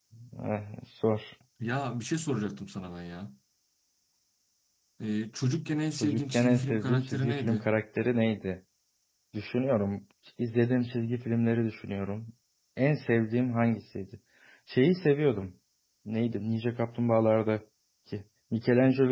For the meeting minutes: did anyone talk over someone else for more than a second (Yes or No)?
Yes